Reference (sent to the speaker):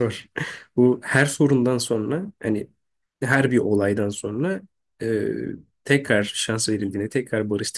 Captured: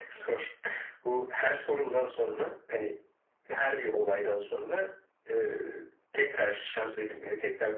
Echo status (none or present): present